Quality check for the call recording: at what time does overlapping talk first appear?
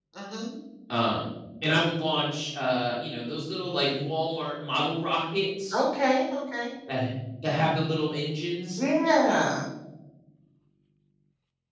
none

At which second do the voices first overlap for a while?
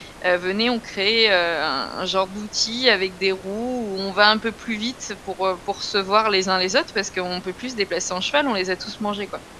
none

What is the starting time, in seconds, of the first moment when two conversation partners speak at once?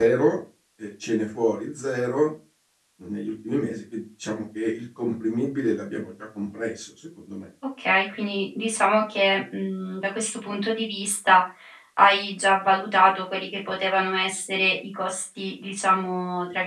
none

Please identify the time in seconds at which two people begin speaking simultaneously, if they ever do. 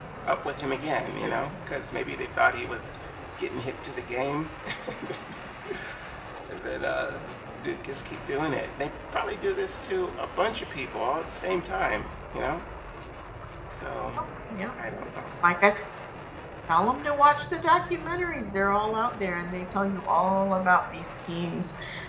none

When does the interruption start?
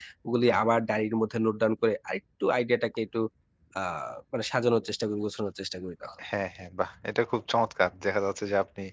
none

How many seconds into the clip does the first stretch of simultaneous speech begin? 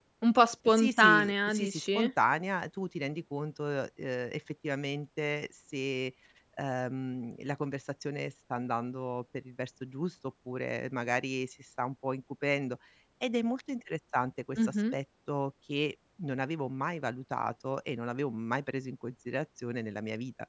0.7 s

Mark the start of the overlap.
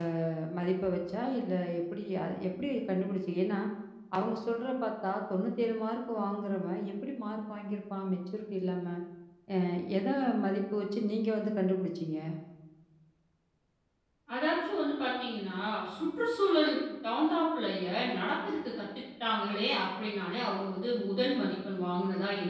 none

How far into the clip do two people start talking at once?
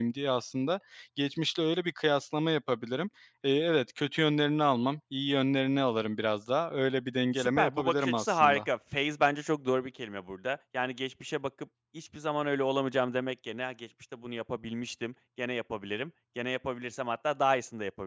7.4 s

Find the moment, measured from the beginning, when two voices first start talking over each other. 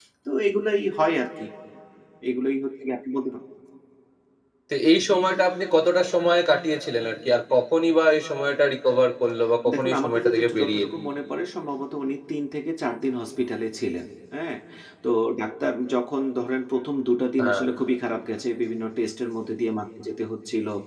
9.7 s

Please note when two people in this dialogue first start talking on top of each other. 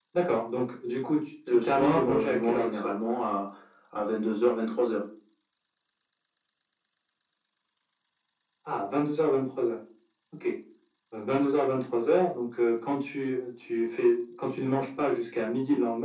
1.5 s

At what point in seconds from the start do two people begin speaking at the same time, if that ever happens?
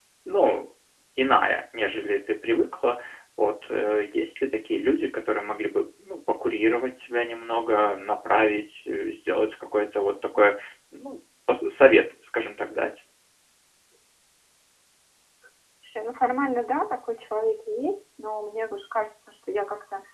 none

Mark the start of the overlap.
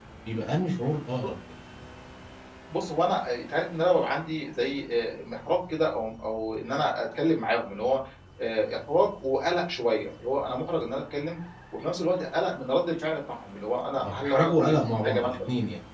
14.0 s

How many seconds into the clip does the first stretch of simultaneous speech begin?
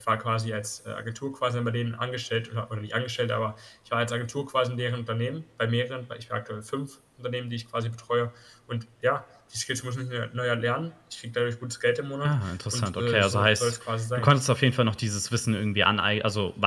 12.2 s

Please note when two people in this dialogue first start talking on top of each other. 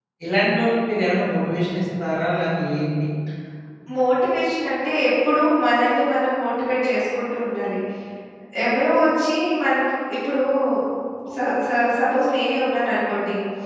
none

